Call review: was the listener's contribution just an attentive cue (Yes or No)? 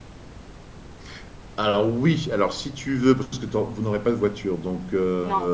Yes